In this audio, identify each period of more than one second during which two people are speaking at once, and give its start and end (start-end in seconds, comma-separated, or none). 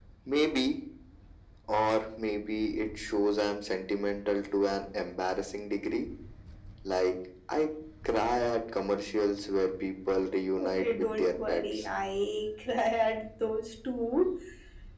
10.6-11.8